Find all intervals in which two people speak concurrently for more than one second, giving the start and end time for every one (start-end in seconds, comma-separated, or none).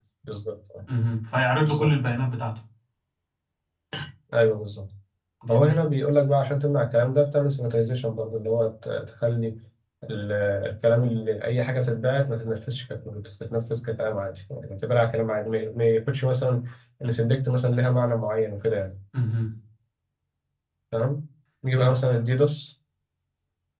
none